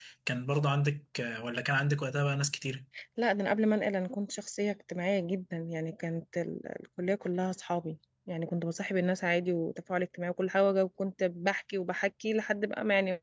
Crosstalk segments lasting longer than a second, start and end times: none

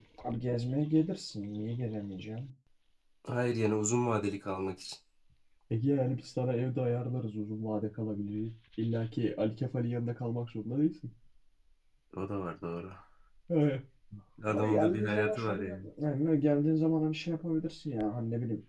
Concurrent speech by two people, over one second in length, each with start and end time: 14.5-15.9

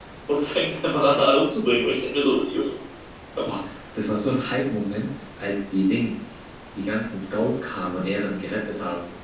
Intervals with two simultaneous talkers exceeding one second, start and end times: none

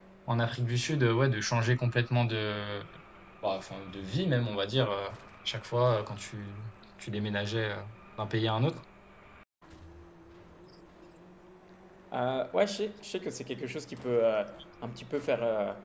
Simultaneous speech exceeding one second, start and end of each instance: none

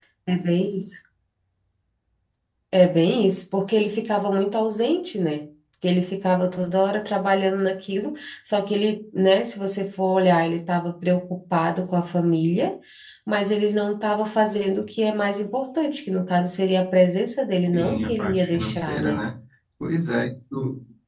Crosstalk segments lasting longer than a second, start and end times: 17.6-19.2

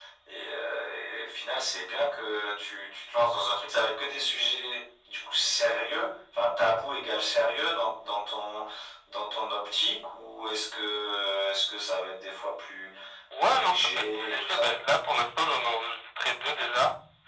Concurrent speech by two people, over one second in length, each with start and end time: 13.4-14.7

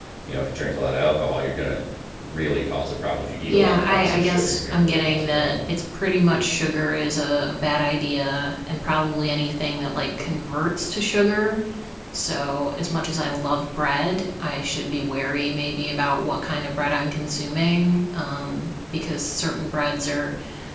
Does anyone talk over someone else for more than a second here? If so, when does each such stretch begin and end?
3.5-5.6

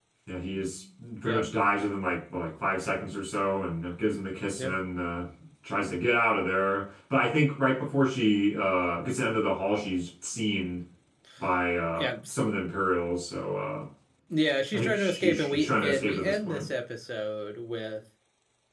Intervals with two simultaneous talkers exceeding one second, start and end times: 14.7-16.7

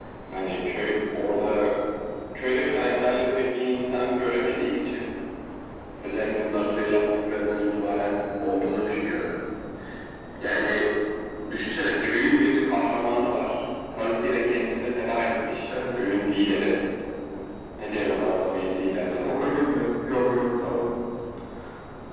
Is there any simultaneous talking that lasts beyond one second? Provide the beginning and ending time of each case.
none

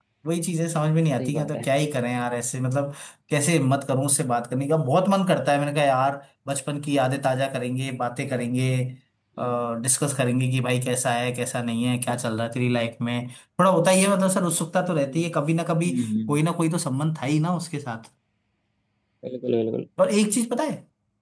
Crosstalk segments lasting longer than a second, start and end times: none

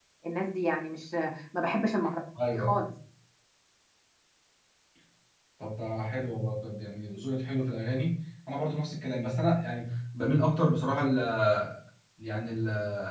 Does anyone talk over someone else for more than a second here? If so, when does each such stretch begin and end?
none

